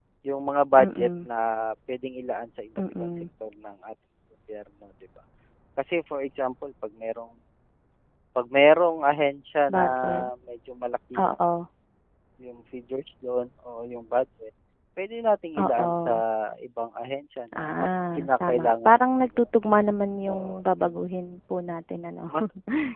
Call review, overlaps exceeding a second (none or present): present